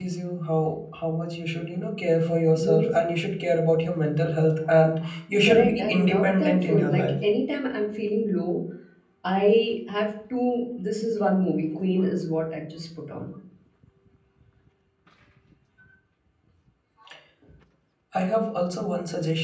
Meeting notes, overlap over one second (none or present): present